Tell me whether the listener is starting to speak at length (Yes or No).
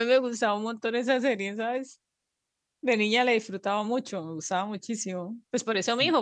No